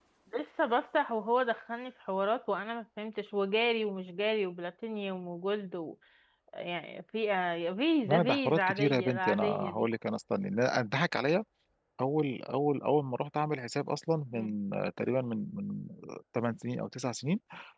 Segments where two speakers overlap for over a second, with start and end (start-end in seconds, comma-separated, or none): 8.0-9.9